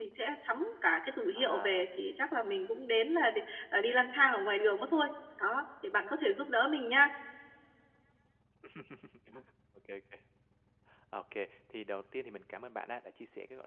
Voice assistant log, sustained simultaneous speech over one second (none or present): none